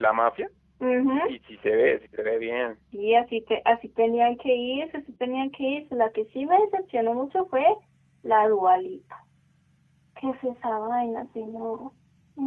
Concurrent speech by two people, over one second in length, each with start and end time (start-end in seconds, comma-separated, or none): none